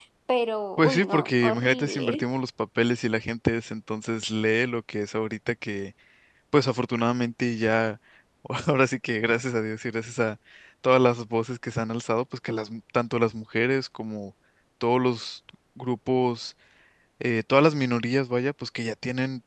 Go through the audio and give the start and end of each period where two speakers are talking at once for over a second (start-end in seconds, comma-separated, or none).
0.8-2.2